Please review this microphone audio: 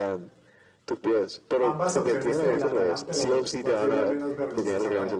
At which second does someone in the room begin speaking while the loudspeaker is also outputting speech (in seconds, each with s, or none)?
1.6 s